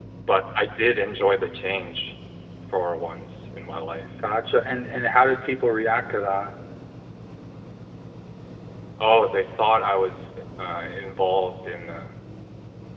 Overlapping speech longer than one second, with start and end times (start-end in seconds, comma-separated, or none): none